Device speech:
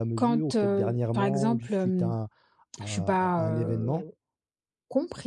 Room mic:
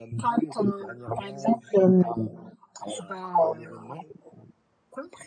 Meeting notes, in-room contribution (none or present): none